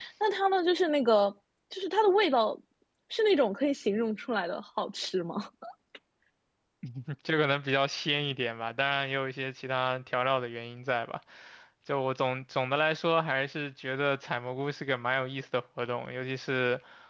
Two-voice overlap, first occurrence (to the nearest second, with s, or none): none